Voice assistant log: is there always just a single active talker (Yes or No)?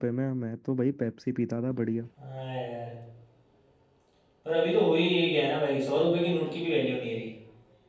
Yes